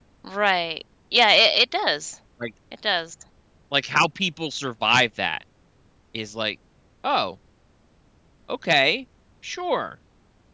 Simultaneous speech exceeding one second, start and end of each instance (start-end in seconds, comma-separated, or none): none